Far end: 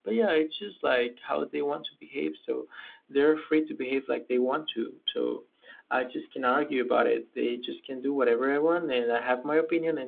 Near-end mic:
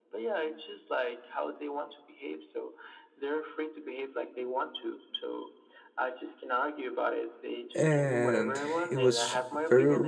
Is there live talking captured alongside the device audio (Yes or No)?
Yes